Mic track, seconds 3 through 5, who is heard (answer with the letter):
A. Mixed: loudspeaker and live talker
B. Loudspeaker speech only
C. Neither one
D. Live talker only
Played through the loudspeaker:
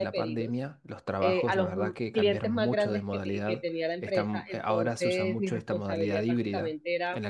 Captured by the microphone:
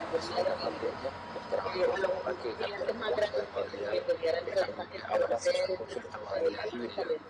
B